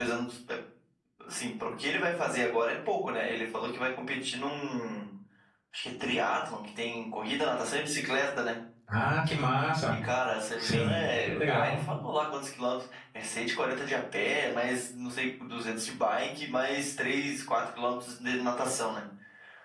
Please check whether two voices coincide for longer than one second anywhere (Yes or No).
Yes